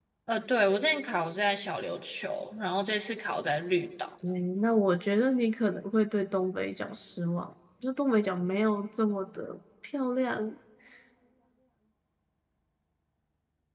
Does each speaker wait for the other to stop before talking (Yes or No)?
Yes